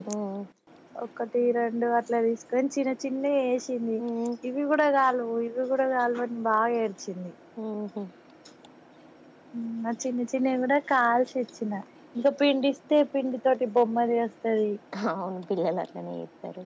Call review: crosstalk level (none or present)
none